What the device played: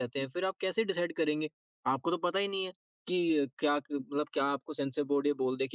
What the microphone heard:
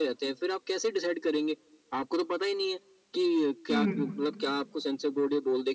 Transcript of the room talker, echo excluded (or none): हुँ,